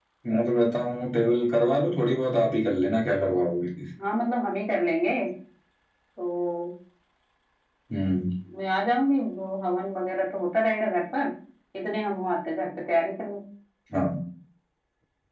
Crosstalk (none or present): none